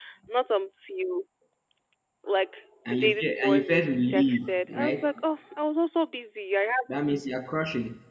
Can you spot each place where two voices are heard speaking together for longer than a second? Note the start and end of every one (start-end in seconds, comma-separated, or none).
2.9-5.0